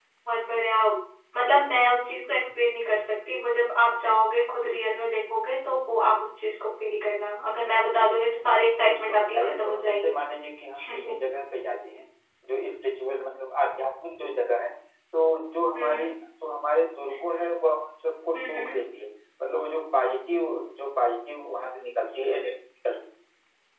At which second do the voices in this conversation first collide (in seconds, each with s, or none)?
8.8 s